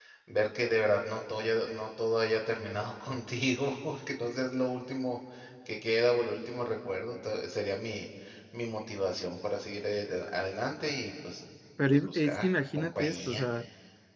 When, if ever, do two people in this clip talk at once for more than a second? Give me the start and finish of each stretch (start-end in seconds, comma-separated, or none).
11.9-13.4